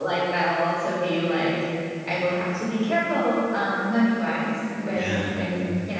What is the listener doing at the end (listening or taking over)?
listening